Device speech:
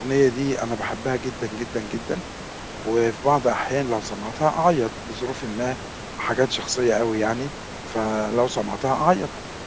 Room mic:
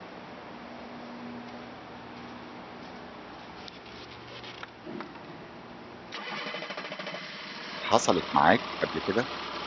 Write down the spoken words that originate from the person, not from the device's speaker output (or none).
حصلت معاك قبل كده؟